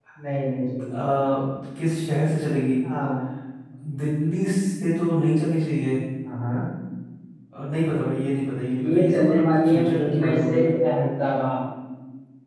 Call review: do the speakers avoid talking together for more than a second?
No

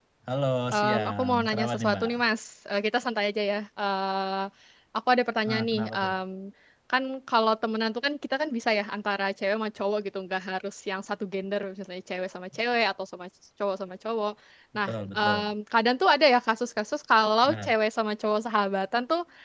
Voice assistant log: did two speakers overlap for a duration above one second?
Yes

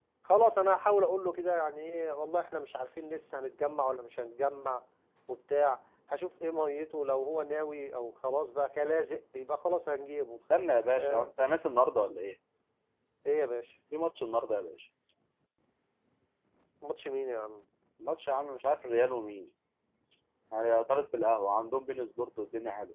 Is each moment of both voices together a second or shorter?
Yes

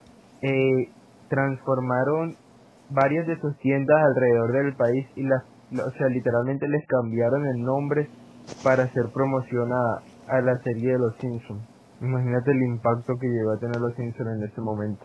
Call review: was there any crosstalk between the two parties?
No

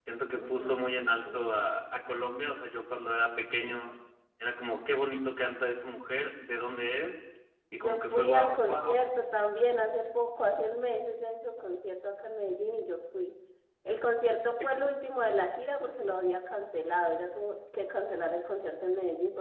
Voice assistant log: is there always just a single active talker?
No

